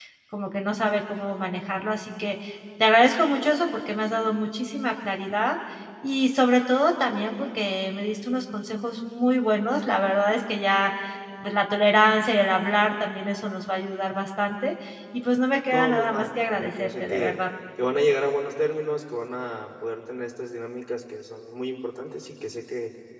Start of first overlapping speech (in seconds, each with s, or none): 15.7 s